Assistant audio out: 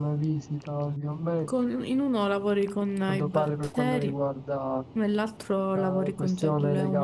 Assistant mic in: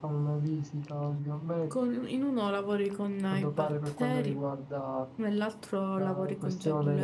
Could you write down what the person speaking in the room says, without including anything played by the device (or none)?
none